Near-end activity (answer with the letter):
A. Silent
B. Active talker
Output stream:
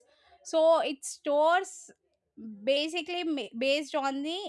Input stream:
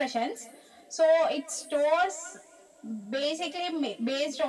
A